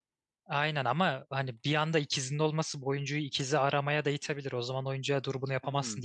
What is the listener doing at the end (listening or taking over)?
taking over